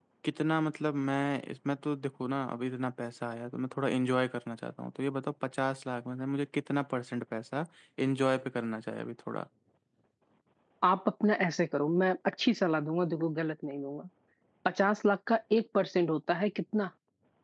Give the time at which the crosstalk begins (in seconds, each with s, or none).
none